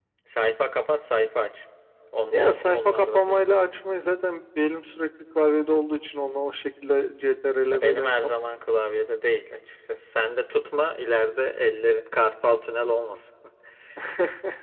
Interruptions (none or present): present